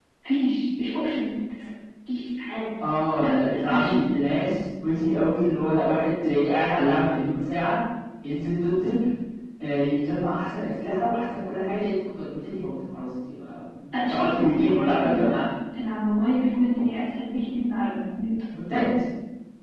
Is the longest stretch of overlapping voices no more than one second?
No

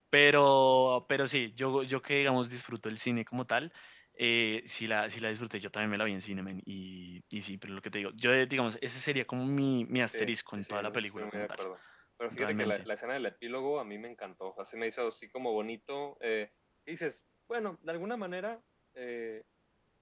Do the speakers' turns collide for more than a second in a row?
Yes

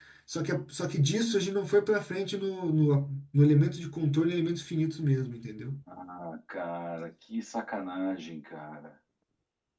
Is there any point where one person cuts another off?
No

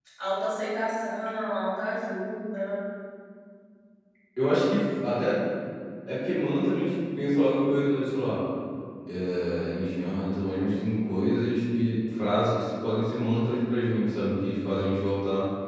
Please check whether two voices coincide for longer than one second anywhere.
No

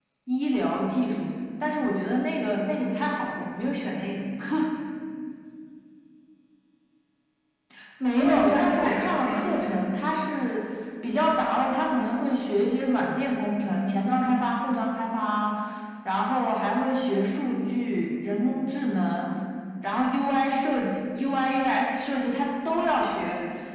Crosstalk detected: Yes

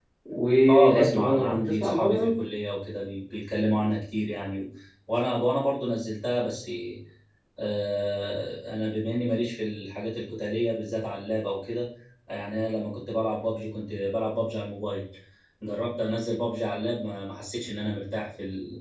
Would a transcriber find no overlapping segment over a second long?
No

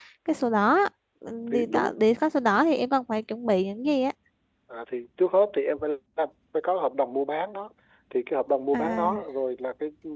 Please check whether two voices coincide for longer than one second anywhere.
No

